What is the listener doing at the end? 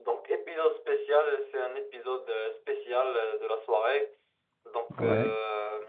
listening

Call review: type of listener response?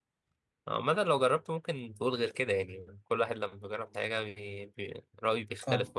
taking over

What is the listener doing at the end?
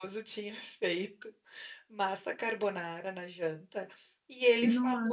listening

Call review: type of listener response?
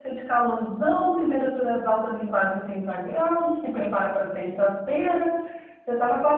listening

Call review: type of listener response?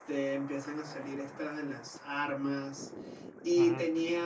listening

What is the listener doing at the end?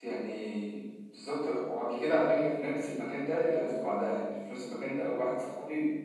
listening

